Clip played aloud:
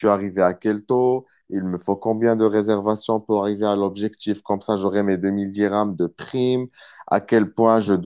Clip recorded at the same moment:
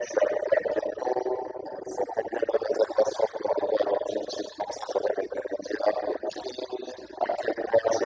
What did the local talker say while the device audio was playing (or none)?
none